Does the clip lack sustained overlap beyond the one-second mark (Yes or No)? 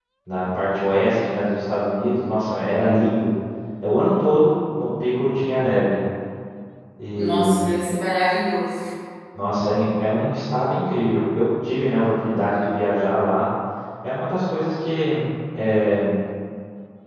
Yes